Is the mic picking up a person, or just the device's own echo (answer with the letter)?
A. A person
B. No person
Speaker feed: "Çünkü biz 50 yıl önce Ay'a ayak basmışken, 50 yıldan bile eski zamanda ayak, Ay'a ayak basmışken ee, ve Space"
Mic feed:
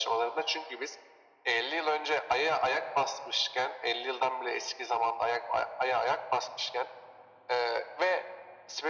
B